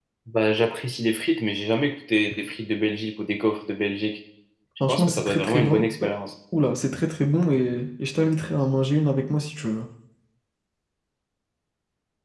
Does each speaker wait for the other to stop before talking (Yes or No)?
No